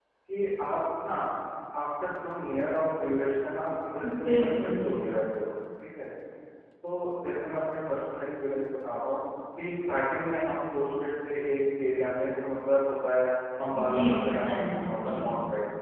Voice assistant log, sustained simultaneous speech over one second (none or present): present